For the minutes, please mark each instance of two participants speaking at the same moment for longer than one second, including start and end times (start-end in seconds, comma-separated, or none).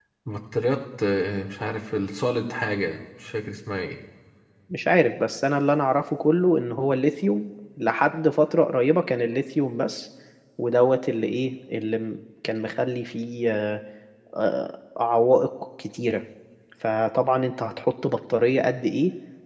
none